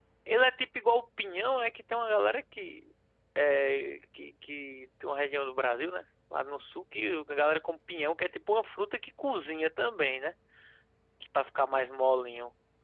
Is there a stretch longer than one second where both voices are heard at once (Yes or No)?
No